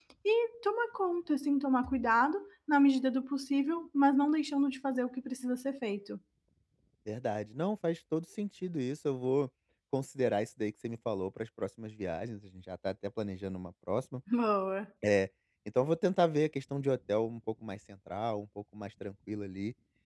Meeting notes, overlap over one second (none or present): none